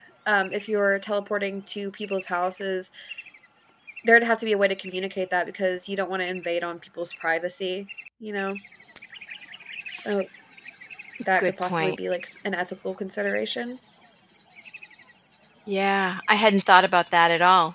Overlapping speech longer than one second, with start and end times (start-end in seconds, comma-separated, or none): none